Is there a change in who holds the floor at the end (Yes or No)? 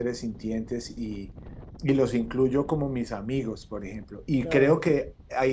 No